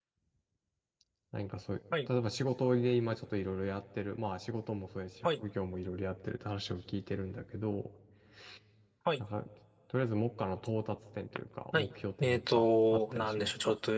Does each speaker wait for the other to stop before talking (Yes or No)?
No